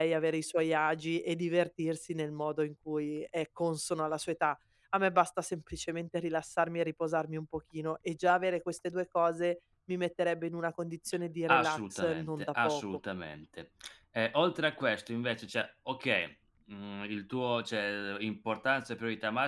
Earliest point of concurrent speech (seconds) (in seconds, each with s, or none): 11.5 s